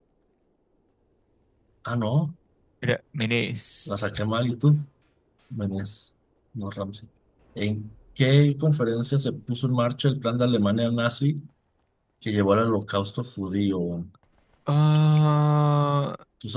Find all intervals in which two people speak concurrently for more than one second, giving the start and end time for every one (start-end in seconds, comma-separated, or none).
none